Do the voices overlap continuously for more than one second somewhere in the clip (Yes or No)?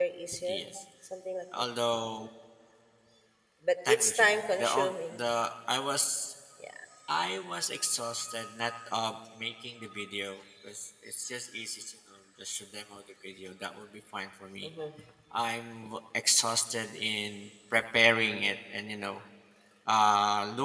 Yes